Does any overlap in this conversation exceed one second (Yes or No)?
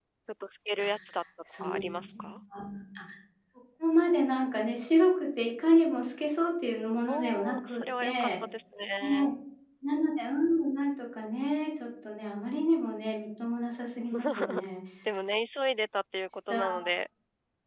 Yes